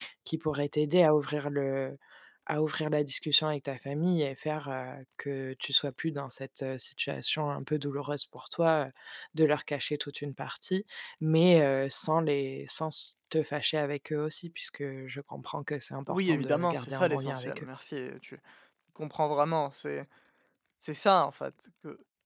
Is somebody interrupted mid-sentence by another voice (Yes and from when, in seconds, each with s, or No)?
Yes, from 16.1 s